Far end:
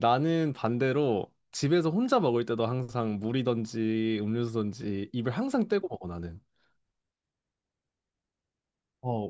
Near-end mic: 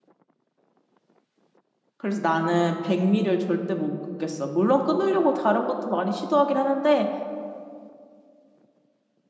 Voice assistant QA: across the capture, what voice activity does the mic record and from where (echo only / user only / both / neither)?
user only